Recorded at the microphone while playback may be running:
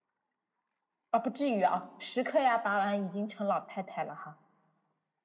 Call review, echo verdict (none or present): present